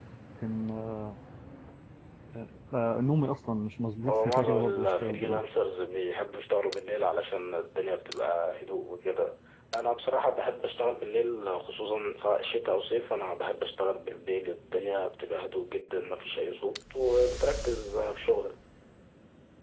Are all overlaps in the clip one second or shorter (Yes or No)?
No